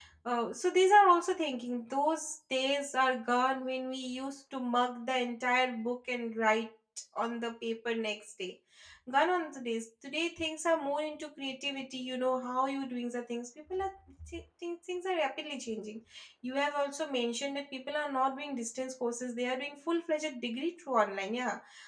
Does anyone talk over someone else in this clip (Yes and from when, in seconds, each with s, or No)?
No